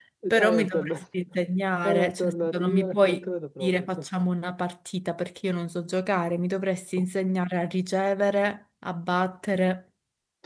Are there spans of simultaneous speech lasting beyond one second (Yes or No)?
Yes